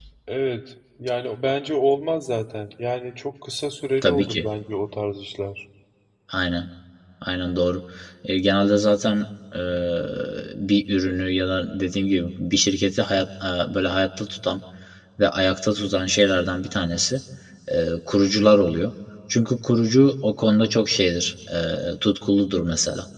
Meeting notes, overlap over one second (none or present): none